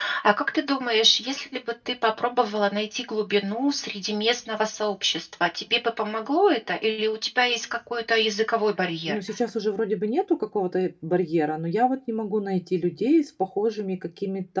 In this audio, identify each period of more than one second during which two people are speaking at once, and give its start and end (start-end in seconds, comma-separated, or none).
none